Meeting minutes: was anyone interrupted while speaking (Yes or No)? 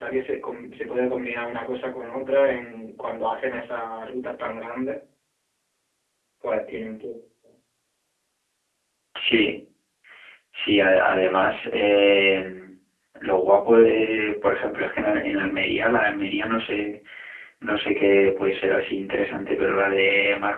No